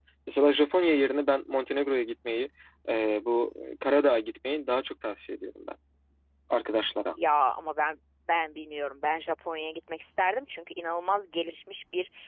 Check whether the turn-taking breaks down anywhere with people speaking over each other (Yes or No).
No